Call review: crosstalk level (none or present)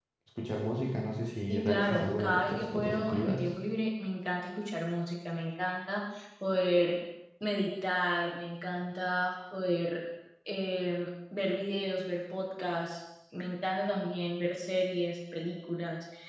present